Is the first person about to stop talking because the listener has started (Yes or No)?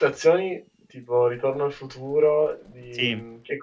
No